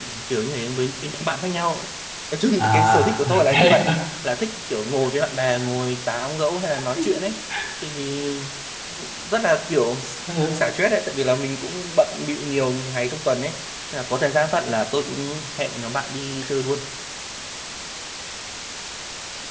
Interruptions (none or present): present